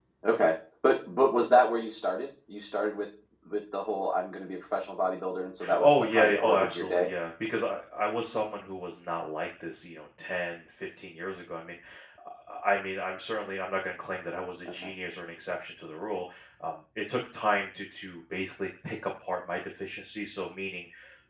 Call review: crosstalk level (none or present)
present